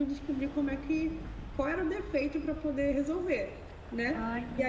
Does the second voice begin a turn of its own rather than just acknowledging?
No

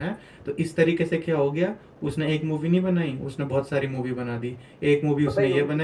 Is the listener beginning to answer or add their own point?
Yes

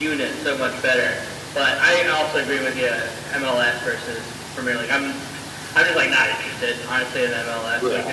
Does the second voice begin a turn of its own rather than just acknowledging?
No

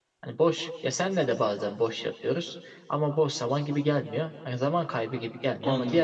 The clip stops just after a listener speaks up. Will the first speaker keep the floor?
Yes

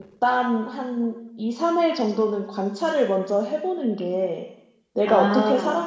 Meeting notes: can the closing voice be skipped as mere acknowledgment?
Yes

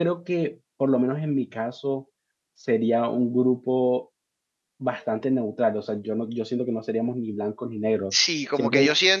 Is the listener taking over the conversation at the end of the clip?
Yes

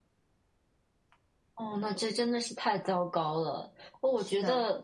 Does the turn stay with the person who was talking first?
Yes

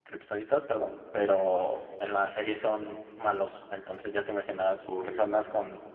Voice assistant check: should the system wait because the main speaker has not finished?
Yes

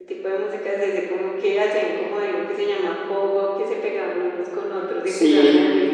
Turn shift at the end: No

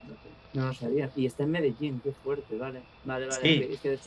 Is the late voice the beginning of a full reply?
No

